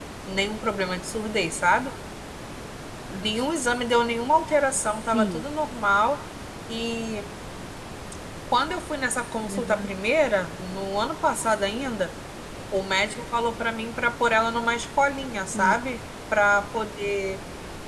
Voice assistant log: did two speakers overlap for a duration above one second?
No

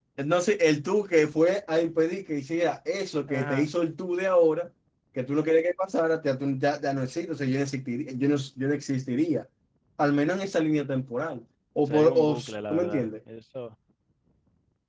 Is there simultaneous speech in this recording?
Yes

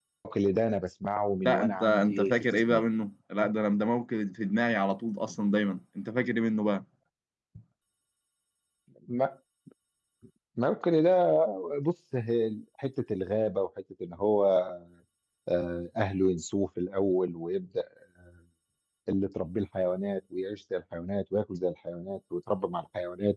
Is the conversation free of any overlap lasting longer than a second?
No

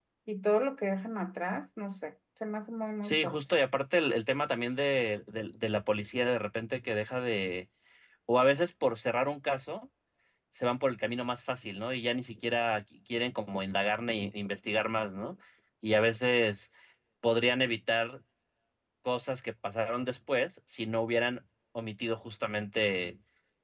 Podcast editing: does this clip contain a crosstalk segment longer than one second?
No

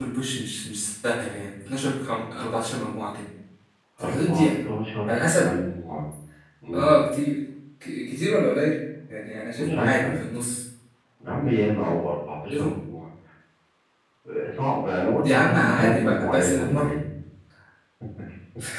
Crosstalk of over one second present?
Yes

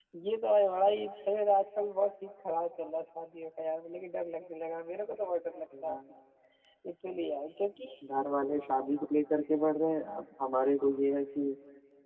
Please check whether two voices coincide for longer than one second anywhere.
No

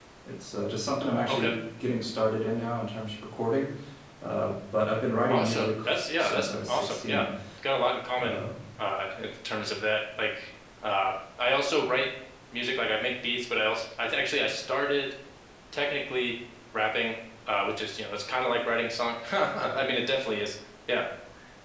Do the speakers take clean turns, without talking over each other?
No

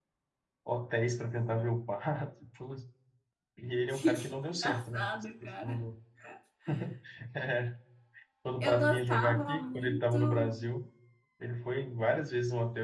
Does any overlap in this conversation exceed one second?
Yes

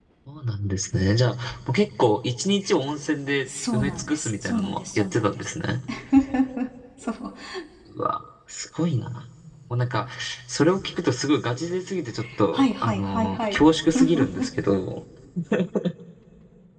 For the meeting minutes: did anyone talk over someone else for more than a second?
Yes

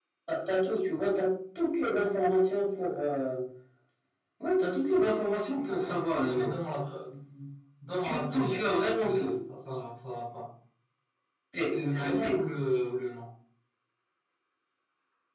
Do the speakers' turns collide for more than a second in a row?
Yes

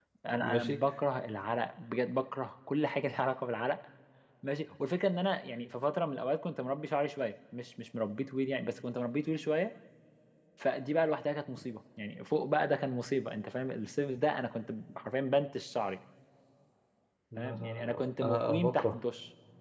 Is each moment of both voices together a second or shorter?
No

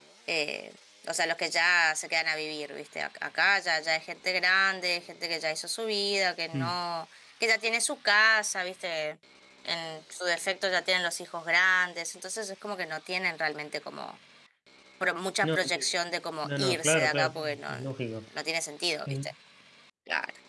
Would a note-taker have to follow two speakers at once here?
Yes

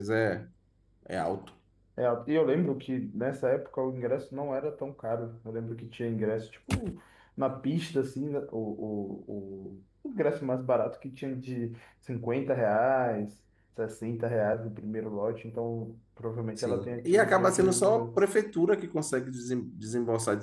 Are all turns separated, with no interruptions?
No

